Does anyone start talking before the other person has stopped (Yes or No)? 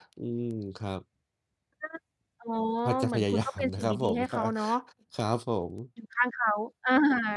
Yes